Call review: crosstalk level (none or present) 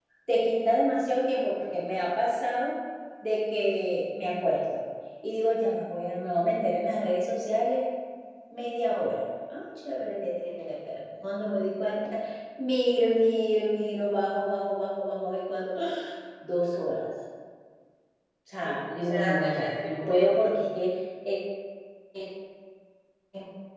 present